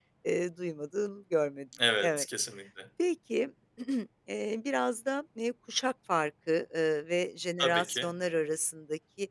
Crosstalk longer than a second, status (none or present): none